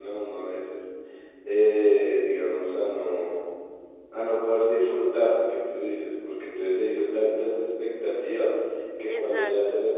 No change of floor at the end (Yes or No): Yes